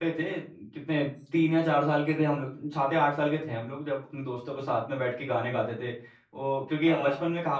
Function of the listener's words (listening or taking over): listening